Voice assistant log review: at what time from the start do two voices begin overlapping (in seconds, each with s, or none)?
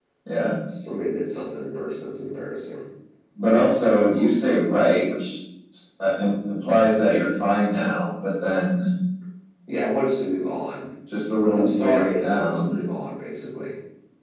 11.6 s